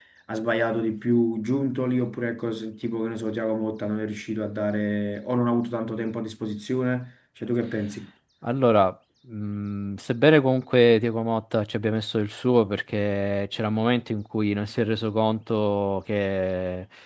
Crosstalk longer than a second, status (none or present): none